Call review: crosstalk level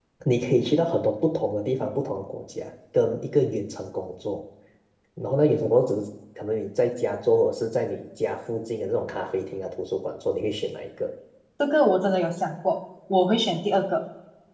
none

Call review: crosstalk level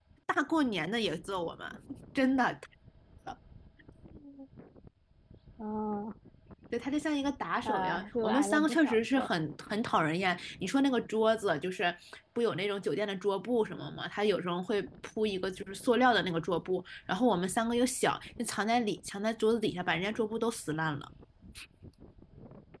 present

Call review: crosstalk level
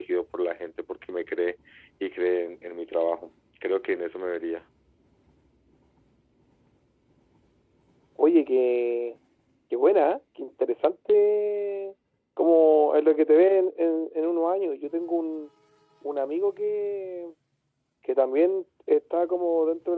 none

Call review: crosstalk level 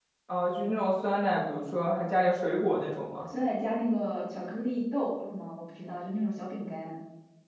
none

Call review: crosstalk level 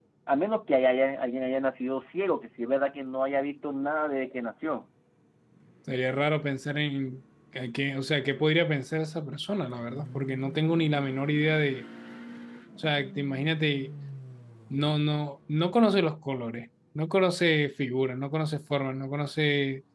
none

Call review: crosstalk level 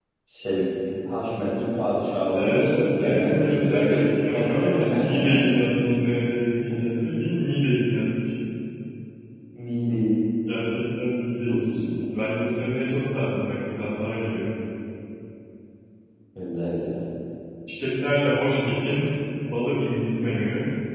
present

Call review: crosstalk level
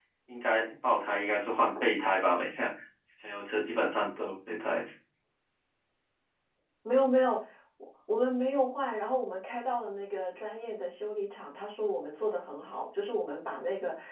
none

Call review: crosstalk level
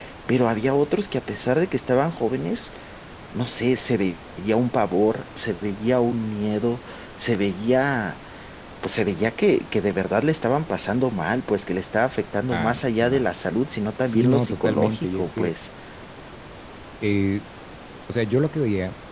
present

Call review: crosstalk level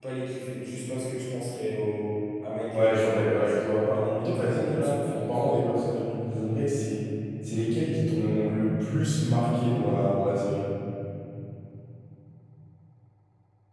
present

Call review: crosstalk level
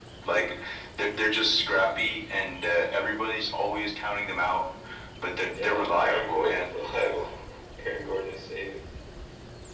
present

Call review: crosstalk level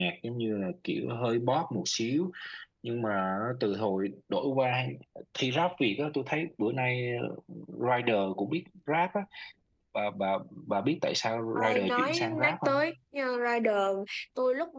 present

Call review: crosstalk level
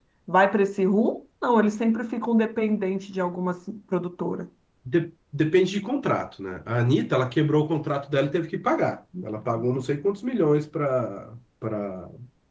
none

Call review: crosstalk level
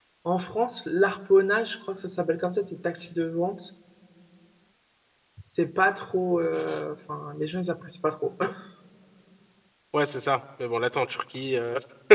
none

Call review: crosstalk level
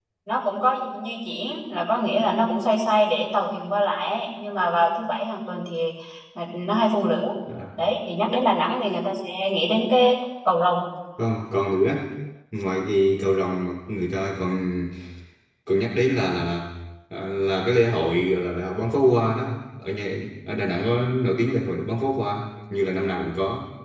none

